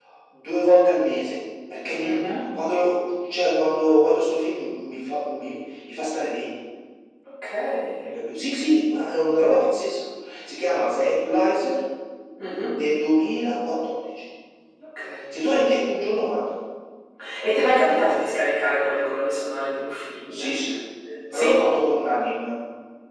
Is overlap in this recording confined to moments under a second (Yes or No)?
Yes